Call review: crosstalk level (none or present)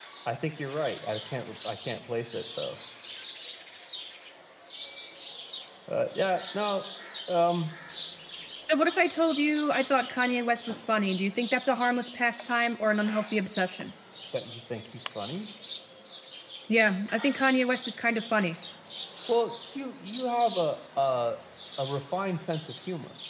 none